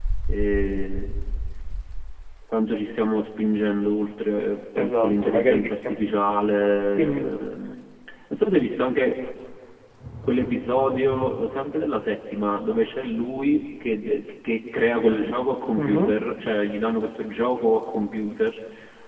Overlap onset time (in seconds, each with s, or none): 4.8 s